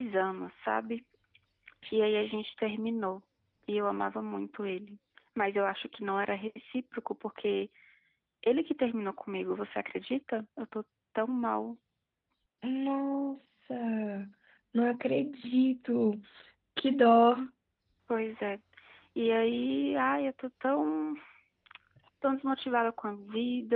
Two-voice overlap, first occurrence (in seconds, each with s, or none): none